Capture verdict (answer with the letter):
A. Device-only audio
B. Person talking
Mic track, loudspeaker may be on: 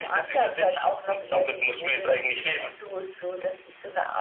A